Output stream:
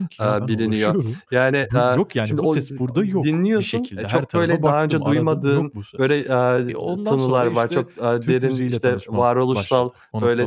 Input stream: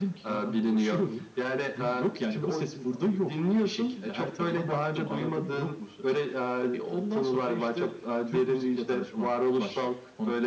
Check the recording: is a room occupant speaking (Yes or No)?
No